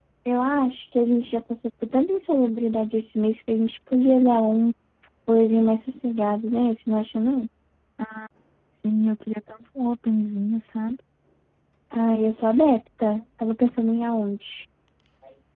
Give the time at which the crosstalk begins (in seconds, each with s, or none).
none